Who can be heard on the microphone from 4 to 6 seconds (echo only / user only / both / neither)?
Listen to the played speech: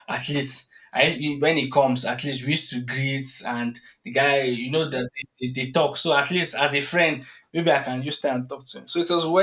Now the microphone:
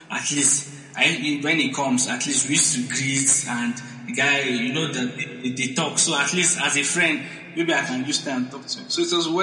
echo only